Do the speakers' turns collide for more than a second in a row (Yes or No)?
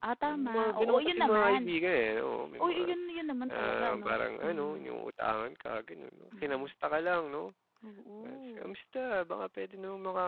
Yes